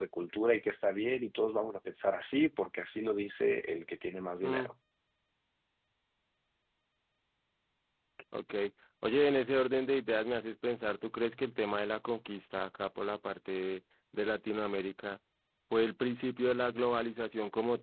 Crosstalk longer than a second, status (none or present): none